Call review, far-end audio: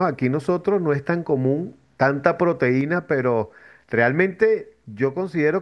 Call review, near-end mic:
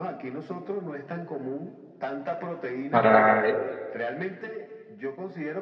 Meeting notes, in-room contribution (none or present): present